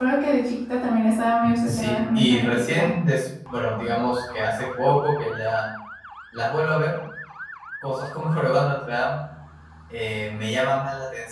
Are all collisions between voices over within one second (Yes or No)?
No